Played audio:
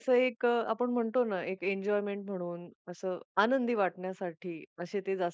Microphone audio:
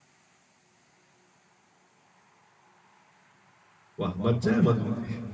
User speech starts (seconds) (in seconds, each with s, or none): 4.0 s